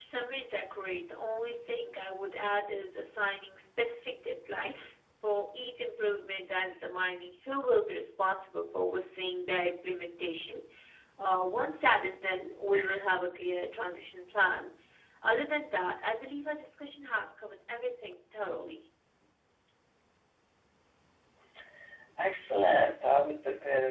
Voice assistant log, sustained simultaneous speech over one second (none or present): none